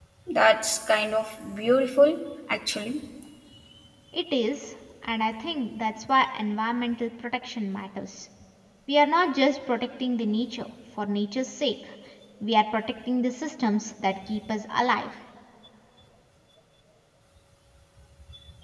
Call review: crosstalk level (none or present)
none